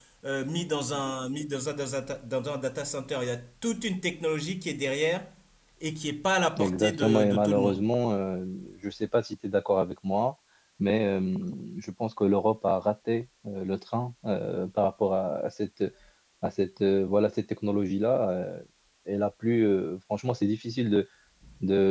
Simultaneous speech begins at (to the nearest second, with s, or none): 7 s